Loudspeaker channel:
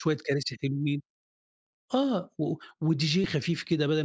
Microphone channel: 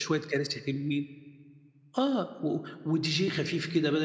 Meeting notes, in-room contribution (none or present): none